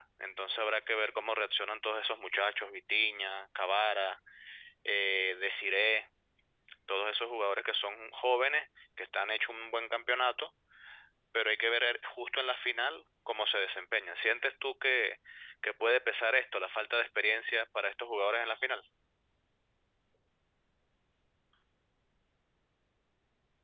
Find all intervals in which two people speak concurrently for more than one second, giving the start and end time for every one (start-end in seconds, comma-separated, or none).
none